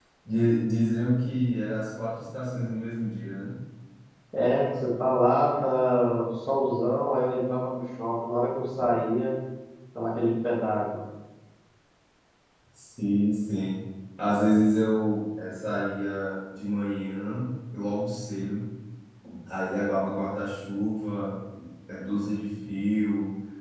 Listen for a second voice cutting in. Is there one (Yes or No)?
No